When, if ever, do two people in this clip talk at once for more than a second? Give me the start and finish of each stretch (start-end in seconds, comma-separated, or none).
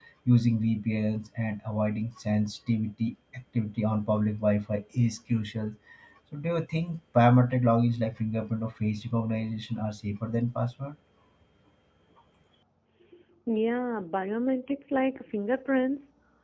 none